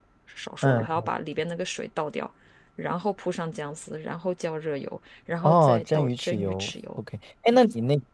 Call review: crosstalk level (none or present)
present